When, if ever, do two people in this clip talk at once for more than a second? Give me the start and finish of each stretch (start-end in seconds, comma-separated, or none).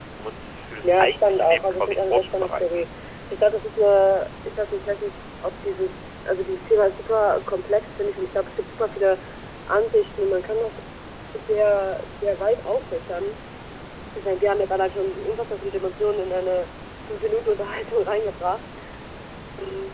0.8-2.8